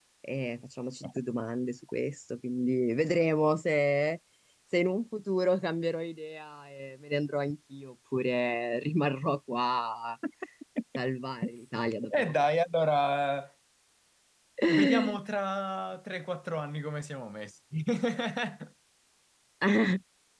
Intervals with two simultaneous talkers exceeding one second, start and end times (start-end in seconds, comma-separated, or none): none